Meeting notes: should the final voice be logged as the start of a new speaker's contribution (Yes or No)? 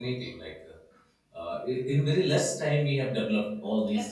Yes